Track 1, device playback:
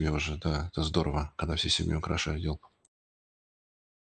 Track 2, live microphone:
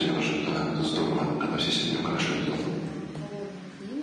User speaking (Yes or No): Yes